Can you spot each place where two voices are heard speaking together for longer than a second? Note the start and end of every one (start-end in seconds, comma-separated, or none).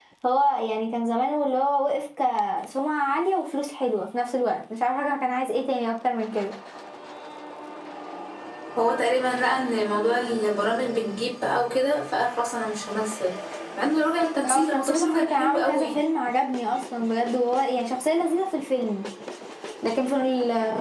14.5-15.9